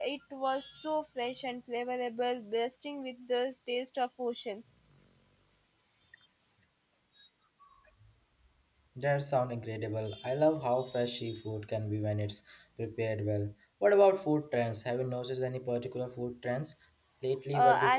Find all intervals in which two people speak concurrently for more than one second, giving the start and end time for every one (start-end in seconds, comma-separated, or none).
none